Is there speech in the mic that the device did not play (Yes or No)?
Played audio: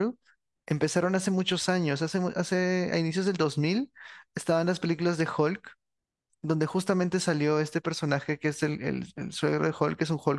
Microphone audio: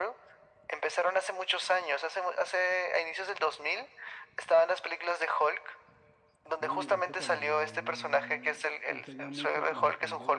Yes